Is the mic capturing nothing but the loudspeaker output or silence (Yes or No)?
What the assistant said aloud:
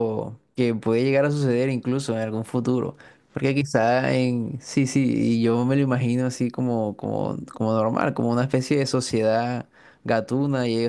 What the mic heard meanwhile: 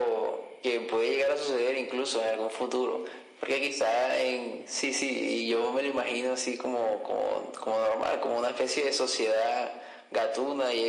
Yes